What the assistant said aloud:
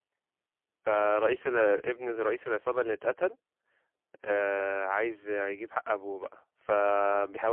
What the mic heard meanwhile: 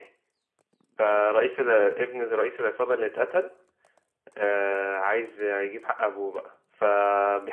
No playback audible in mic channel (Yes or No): No